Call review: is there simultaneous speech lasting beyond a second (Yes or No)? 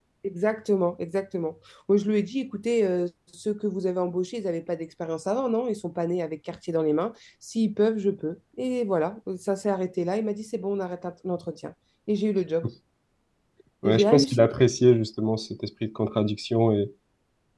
No